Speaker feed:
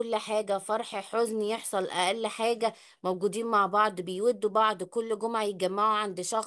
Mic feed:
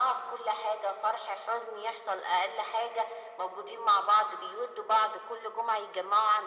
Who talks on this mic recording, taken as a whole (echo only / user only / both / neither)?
echo only